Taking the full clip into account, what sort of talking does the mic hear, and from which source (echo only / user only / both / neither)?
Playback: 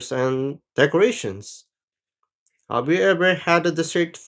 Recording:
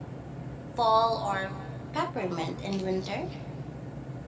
user only